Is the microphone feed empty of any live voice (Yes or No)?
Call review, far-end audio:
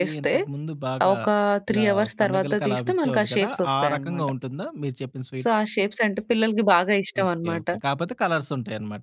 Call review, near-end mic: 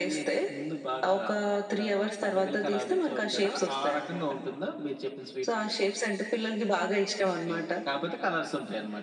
Yes